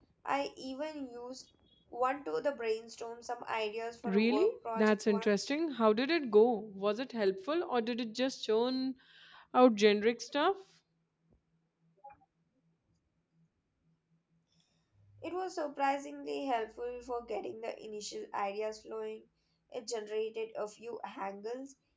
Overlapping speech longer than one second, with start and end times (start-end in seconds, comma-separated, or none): 4.0-5.5